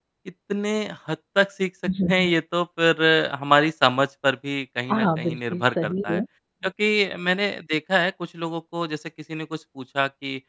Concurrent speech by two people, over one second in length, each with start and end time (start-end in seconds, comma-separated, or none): 4.9-6.2